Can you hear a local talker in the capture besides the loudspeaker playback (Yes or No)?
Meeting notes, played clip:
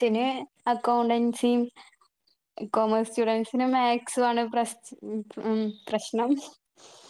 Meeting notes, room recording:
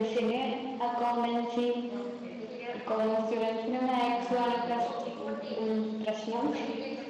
Yes